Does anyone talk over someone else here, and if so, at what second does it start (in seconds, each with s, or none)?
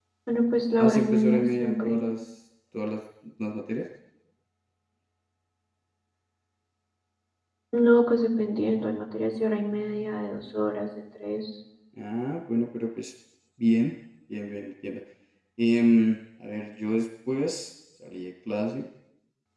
0.8 s